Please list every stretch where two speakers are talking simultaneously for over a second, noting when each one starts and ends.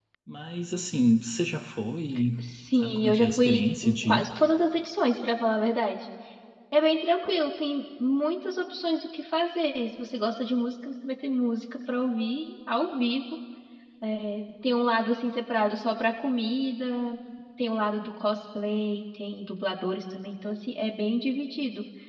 2.8-4.2

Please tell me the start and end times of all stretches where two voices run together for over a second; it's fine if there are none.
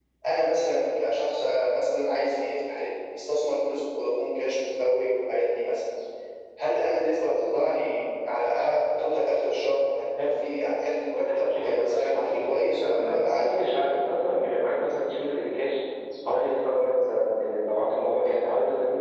11.2-13.6

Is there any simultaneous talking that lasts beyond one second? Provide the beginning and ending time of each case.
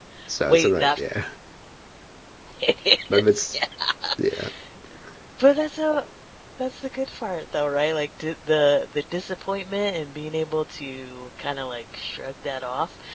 none

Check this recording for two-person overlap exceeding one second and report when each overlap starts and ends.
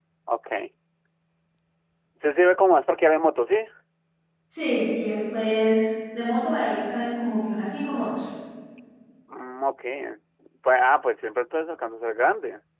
none

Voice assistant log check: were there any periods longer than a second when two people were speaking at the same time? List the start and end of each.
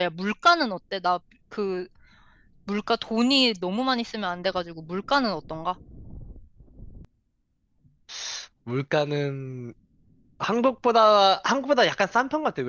none

